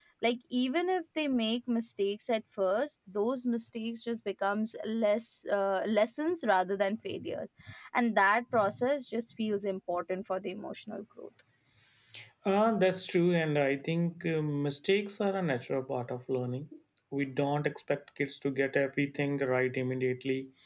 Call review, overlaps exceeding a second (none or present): none